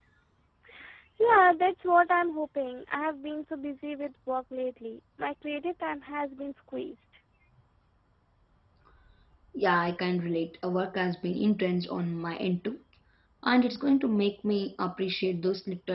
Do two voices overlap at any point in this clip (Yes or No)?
No